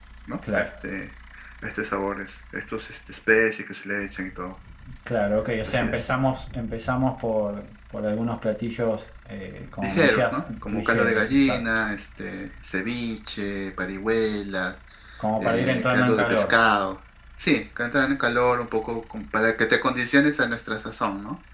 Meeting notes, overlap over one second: present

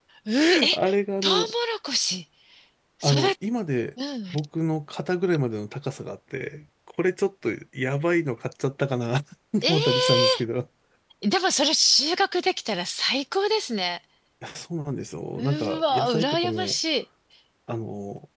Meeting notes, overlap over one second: present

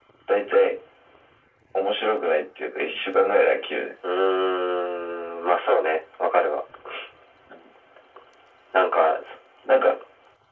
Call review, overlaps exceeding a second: none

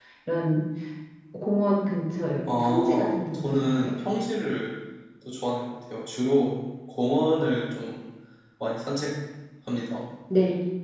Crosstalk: present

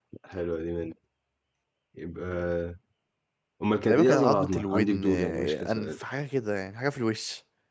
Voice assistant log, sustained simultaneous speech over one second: present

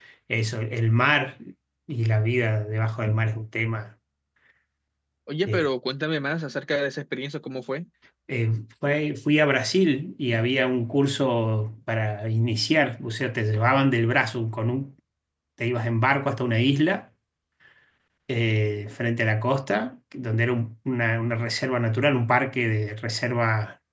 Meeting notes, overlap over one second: none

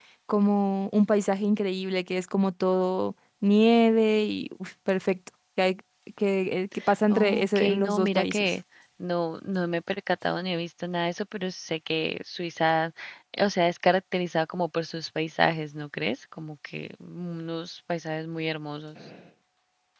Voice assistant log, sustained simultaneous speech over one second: present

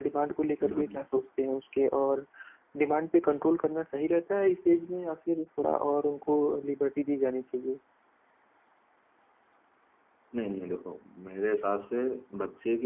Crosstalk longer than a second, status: none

